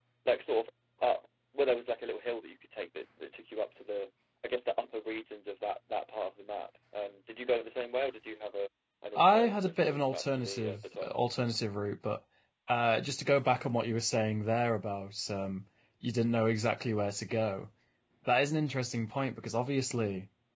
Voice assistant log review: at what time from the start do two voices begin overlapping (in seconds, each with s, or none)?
9.2 s